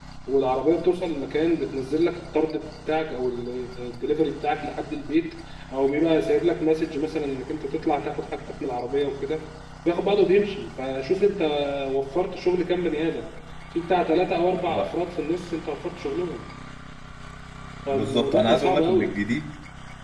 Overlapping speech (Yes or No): Yes